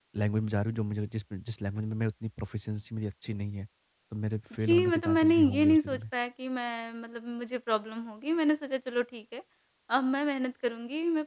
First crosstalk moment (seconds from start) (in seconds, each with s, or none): 4.5 s